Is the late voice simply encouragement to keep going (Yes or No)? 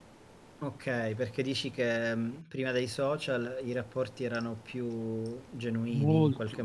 No